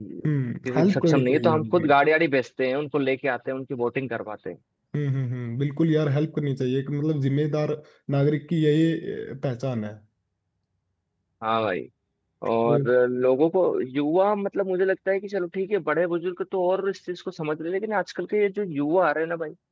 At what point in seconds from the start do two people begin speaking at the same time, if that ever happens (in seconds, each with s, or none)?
0.7 s